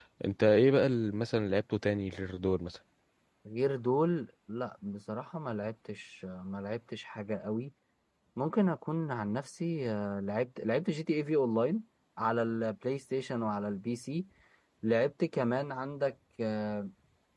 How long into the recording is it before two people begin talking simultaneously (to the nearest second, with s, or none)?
none